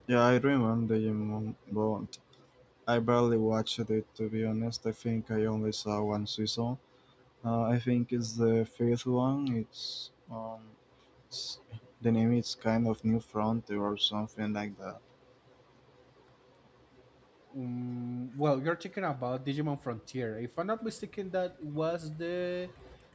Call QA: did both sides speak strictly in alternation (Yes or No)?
Yes